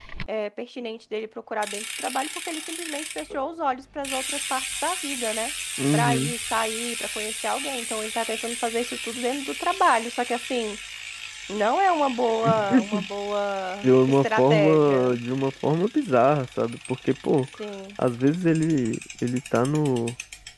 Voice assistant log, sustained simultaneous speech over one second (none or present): present